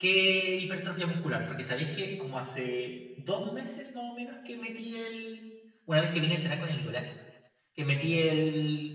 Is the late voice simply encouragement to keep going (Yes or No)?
Yes